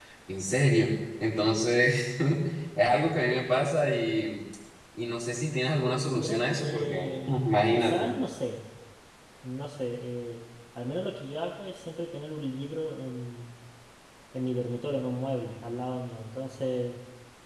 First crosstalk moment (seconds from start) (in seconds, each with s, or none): 6.1 s